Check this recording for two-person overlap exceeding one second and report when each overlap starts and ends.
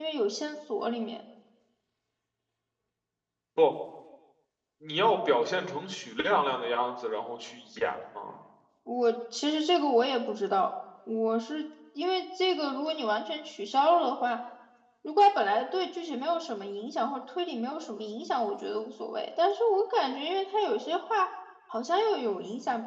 none

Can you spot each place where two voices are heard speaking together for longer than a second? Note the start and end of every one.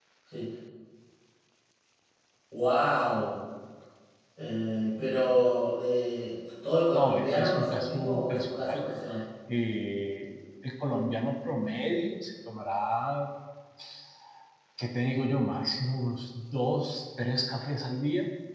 6.9-8.9

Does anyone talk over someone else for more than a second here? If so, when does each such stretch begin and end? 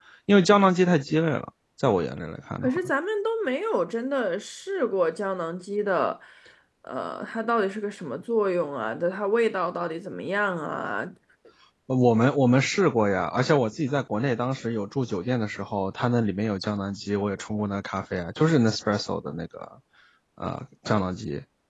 none

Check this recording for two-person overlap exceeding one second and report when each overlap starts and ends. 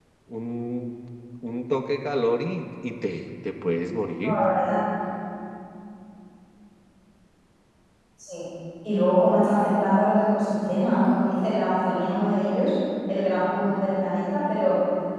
none

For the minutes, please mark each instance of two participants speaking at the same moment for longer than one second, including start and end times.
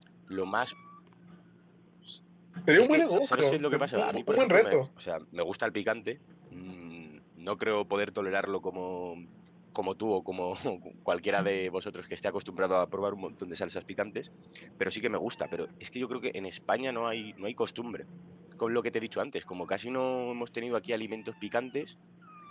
2.8-4.8

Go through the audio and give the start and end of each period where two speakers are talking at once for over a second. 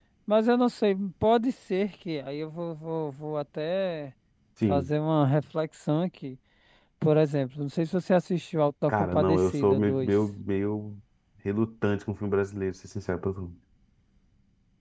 8.9-10.1

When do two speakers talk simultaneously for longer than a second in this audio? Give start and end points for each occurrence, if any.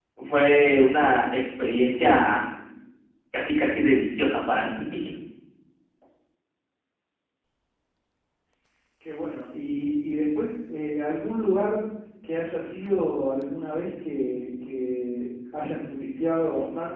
none

